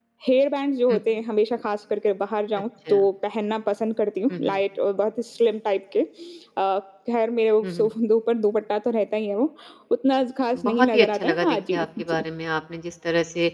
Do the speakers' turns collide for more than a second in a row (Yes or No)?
Yes